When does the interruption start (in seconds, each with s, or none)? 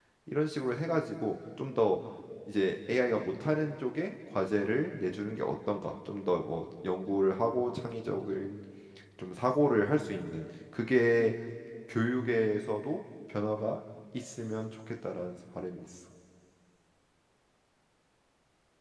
none